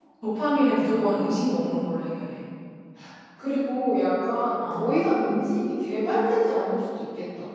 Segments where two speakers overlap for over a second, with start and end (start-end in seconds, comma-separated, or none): none